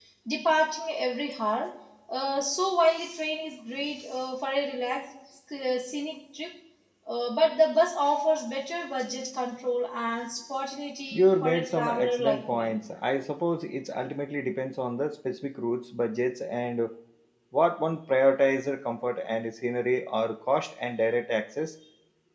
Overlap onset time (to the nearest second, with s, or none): 11 s